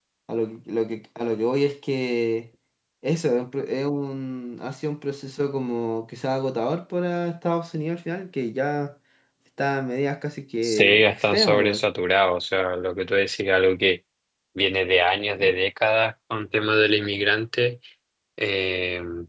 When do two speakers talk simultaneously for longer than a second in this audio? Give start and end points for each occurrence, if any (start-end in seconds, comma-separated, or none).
10.6-11.8